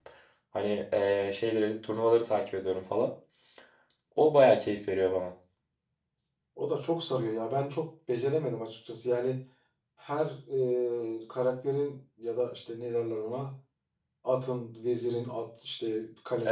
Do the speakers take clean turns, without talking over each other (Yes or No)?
Yes